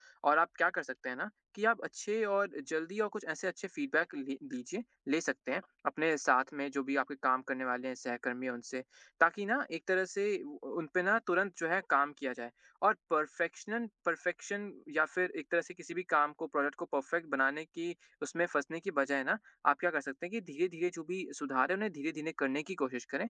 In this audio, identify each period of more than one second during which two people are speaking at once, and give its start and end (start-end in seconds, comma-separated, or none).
none